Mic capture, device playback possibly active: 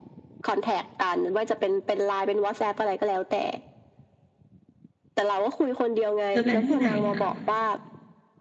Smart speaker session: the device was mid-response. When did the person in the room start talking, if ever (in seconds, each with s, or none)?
6.3 s